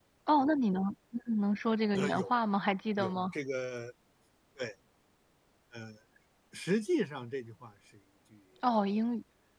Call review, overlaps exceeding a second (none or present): none